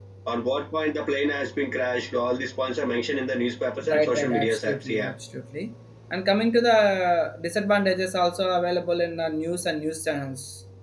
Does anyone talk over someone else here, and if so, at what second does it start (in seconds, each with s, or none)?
3.8 s